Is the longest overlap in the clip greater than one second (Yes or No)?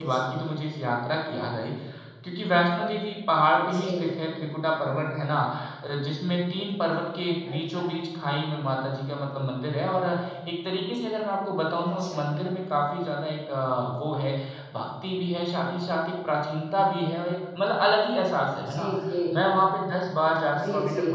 No